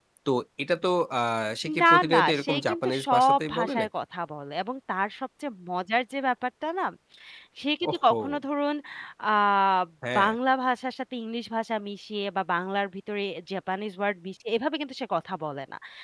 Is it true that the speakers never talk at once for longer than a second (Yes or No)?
No